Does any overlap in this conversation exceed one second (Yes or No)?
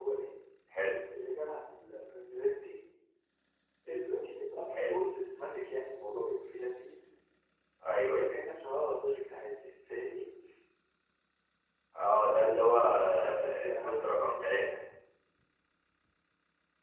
Yes